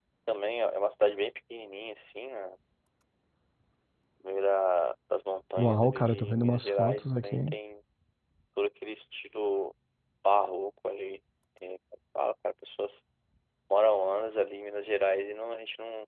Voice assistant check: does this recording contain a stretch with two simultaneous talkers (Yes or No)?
Yes